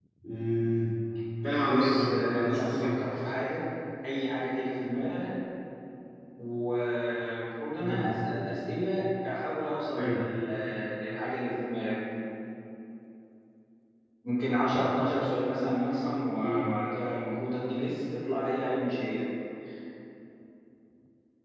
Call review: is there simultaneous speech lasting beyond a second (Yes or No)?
Yes